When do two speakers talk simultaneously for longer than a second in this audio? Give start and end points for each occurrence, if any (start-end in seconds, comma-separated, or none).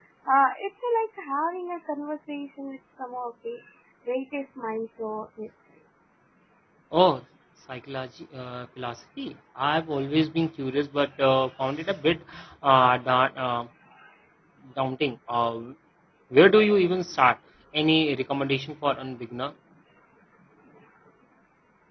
none